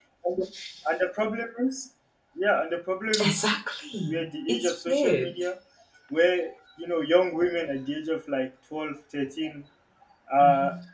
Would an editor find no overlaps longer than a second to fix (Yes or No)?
No